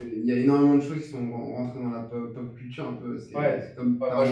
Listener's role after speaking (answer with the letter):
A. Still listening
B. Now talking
B